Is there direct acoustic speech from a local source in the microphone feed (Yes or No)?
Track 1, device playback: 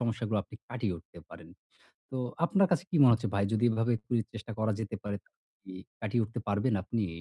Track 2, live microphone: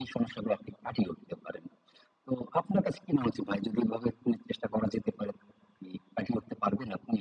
No